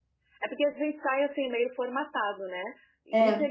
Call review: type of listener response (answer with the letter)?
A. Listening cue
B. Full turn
A